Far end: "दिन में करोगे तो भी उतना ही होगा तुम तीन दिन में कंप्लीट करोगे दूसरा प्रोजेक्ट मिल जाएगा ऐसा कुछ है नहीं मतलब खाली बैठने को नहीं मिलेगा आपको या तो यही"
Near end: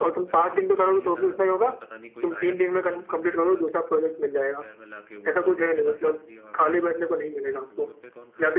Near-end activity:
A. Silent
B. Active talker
B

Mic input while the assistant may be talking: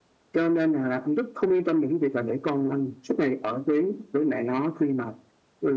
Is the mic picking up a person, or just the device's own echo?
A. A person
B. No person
B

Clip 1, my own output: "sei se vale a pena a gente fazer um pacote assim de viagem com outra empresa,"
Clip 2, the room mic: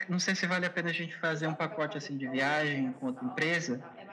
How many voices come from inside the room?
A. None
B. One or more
B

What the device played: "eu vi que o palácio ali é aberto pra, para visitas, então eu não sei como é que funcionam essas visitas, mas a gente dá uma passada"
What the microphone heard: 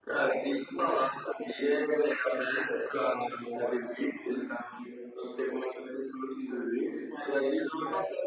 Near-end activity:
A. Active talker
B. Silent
B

